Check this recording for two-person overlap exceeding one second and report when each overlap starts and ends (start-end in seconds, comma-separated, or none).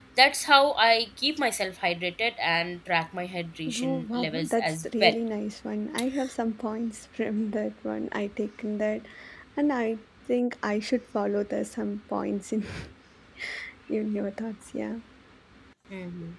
3.7-5.1